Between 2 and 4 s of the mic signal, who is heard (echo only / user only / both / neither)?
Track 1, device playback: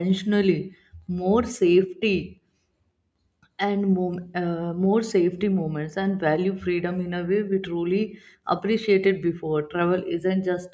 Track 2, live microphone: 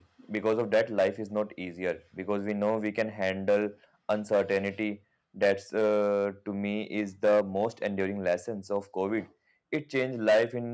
user only